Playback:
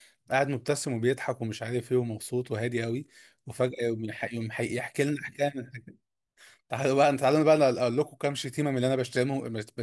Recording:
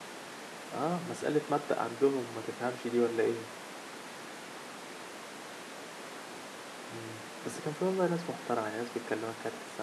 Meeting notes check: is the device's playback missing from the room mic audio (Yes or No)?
Yes